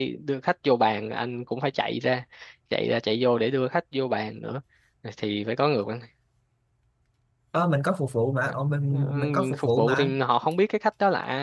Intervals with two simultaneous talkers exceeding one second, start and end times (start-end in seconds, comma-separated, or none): 8.9-10.1